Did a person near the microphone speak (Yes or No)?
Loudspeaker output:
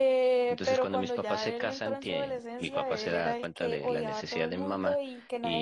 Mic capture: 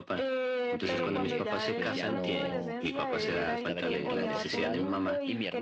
Yes